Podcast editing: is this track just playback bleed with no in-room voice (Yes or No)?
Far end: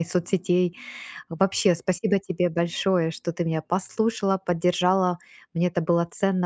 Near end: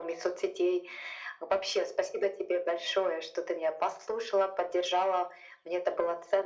Yes